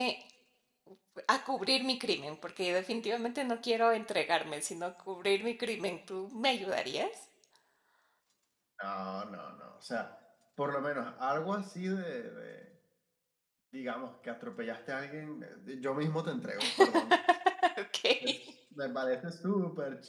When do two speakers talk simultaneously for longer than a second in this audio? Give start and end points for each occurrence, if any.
none

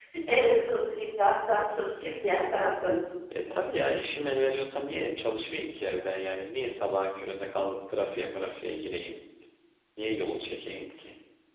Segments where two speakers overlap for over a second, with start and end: none

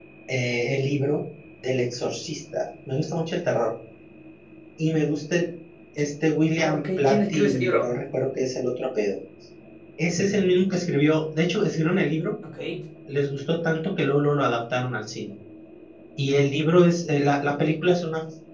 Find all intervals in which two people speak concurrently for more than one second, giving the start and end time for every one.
6.6-7.9

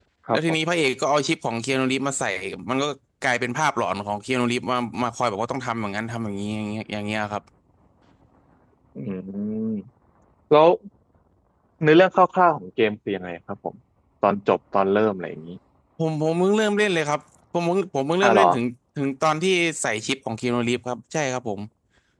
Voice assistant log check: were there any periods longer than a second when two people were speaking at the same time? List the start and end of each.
none

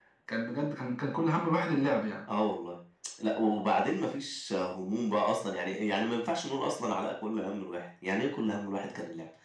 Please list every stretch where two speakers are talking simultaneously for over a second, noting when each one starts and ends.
none

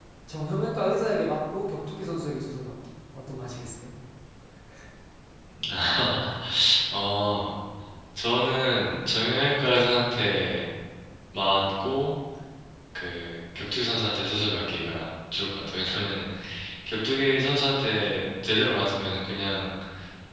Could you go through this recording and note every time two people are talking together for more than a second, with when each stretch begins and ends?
none

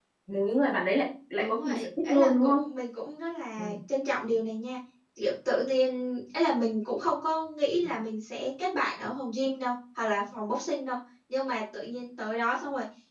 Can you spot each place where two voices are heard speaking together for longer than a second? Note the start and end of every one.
1.4-2.6

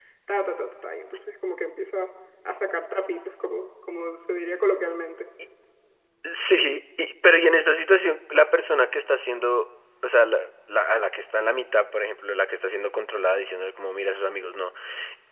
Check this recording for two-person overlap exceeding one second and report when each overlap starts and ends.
none

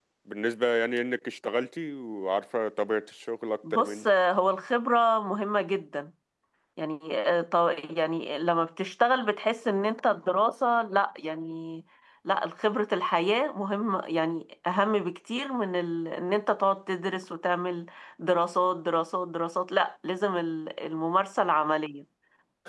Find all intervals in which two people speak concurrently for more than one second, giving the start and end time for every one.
none

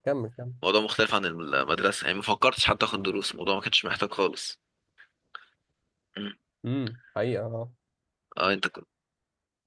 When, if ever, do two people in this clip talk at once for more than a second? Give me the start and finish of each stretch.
none

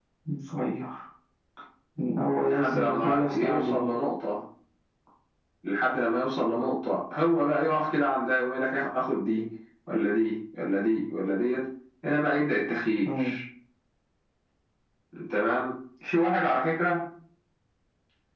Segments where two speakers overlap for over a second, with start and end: 2.4-3.9

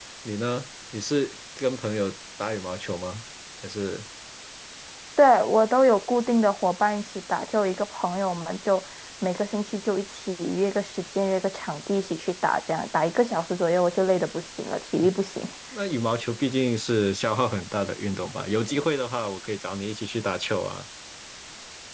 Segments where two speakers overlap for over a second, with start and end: none

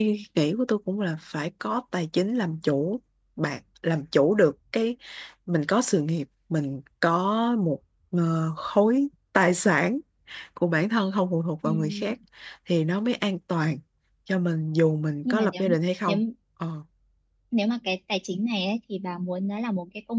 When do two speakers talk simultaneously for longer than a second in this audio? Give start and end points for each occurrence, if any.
none

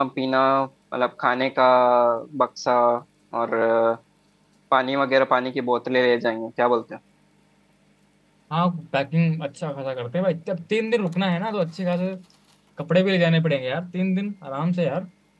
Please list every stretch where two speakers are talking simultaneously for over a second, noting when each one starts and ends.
none

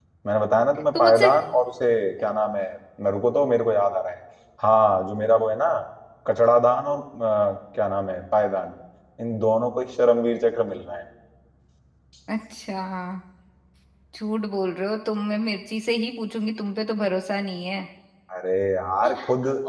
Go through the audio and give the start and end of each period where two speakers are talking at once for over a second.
none

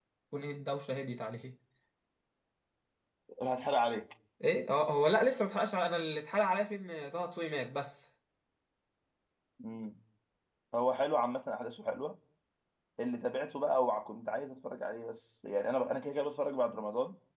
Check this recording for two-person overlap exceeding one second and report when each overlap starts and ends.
none

